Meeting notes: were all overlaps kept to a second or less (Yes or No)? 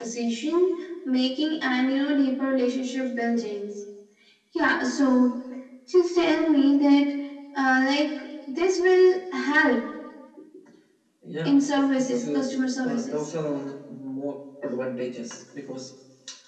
No